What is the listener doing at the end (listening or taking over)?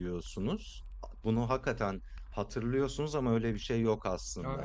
taking over